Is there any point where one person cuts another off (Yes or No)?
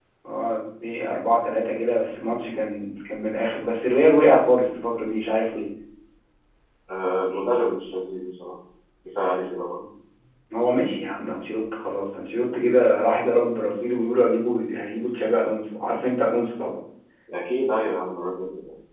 No